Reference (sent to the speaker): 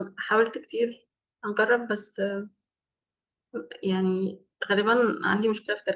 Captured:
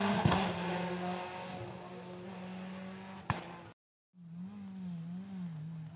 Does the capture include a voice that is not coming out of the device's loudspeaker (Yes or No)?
No